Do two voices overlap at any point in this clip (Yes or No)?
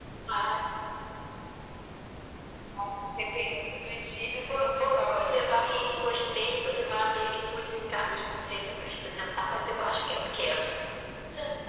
Yes